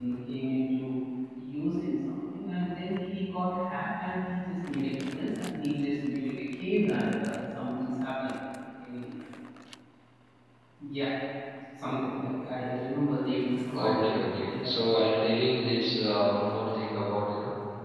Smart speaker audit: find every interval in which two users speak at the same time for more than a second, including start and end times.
13.7-15.1

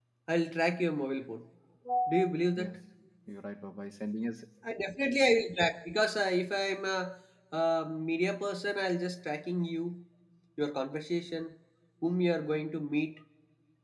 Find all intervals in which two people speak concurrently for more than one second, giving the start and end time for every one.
none

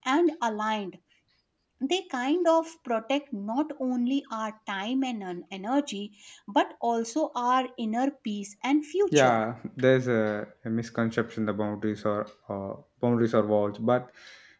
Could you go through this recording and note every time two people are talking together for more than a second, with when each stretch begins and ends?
none

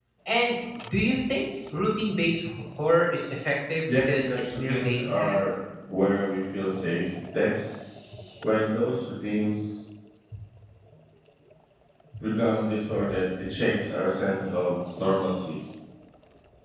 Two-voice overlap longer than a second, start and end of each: 3.9-5.4

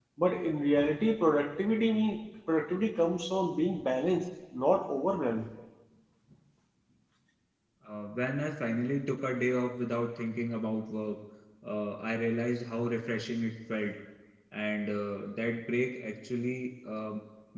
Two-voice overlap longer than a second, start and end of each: none

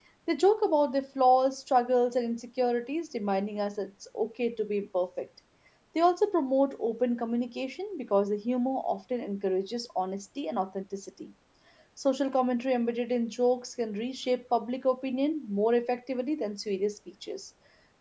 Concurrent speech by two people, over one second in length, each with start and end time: none

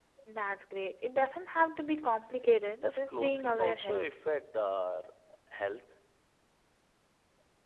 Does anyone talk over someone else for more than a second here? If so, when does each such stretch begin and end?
2.9-4.2

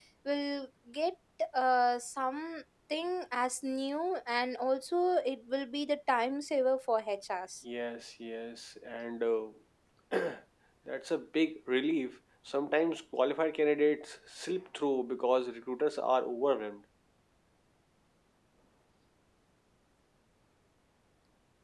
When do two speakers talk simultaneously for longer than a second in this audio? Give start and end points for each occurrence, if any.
none

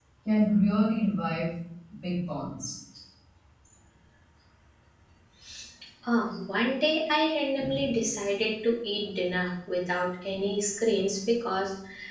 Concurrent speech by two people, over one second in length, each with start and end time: none

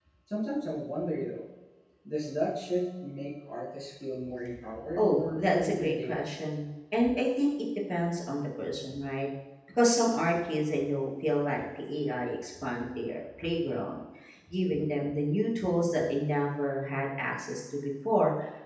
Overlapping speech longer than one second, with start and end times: 4.9-6.1

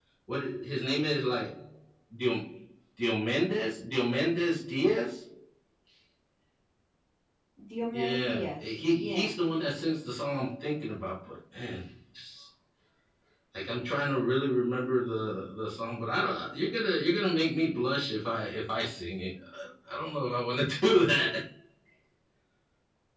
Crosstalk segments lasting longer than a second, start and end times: 7.9-9.3

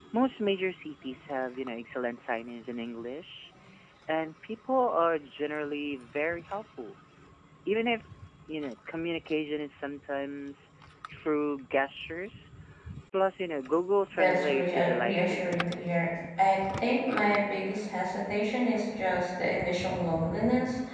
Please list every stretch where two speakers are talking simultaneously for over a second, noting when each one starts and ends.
14.1-15.6

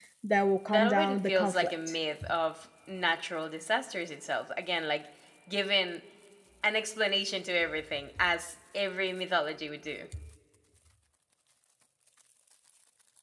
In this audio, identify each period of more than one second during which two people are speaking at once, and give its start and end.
0.7-1.9

